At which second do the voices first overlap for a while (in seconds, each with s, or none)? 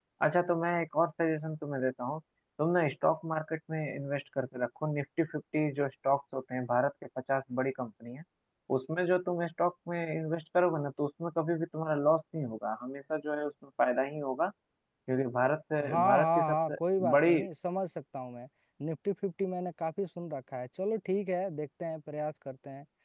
15.8 s